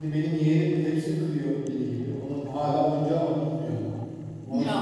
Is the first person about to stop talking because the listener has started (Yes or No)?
Yes